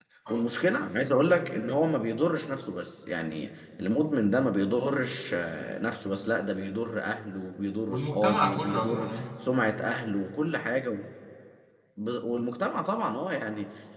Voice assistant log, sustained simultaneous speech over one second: present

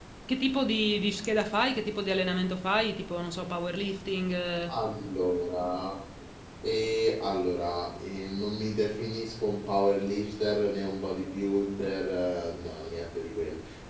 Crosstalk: none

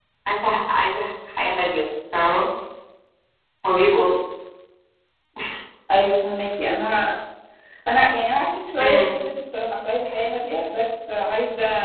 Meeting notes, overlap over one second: none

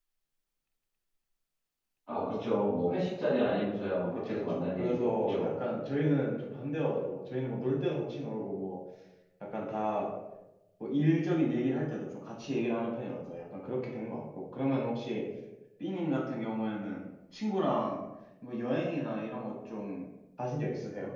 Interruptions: present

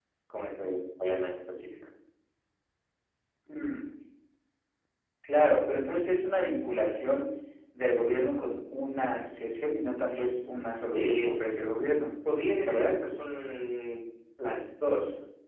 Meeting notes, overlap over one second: none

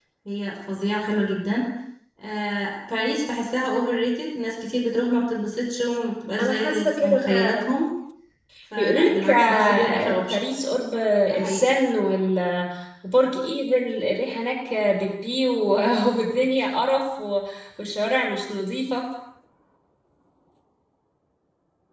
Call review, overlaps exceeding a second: present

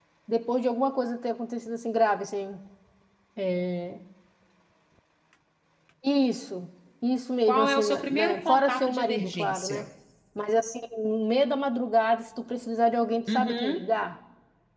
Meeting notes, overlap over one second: present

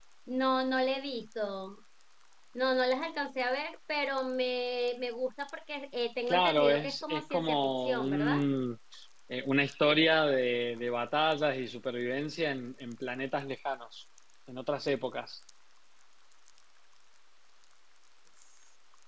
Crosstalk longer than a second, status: present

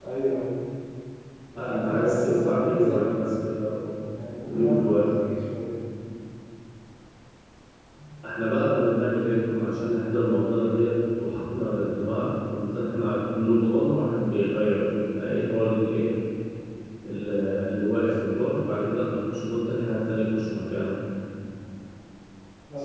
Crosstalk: present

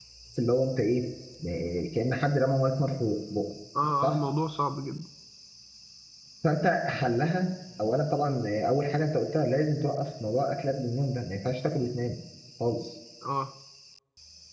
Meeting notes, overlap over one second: none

